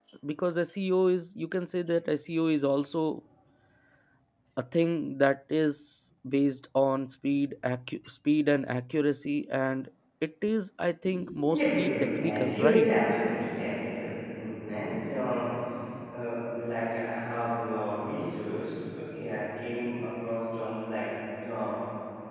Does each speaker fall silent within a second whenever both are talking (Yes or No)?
No